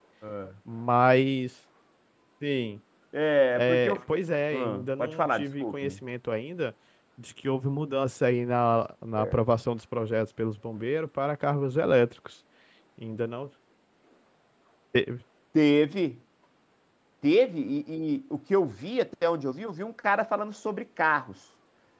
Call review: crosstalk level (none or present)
present